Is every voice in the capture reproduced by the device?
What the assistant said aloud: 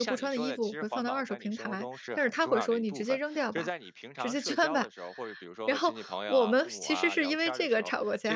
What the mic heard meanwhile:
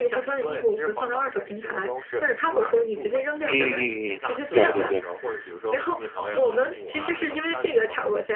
No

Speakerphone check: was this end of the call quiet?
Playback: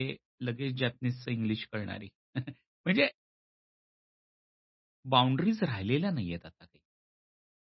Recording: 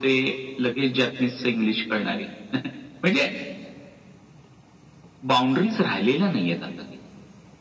Yes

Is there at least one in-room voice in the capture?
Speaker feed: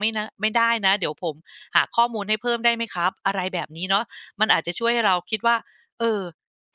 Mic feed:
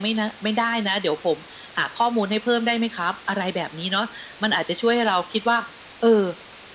No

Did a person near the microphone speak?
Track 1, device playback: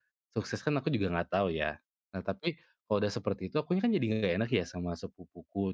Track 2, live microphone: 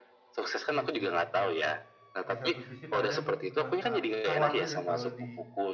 Yes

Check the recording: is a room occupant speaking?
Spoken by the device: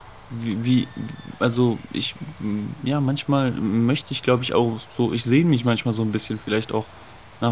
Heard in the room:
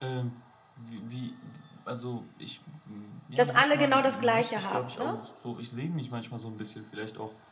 Yes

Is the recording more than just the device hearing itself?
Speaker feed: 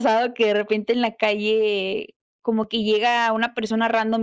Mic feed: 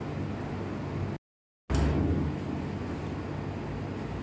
No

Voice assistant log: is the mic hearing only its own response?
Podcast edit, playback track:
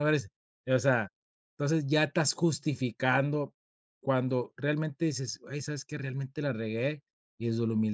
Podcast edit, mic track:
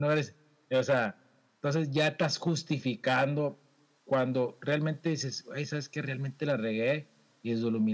Yes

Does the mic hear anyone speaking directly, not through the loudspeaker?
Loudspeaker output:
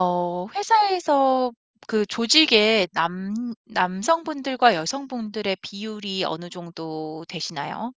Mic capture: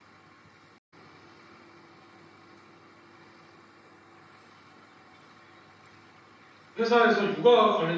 Yes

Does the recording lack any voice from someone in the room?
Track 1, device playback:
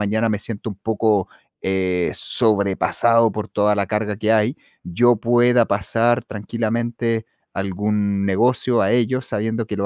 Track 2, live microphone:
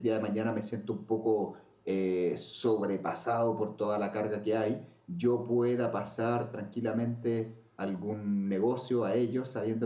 Yes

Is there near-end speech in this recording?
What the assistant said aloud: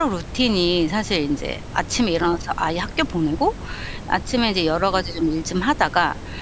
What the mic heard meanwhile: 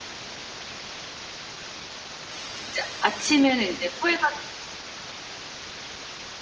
Yes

